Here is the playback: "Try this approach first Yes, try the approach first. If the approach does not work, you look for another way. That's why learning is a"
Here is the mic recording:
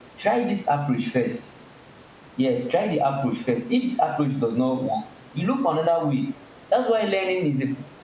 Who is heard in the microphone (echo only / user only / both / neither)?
echo only